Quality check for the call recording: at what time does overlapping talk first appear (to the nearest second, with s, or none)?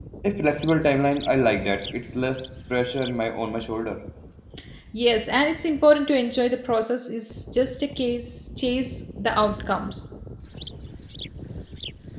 none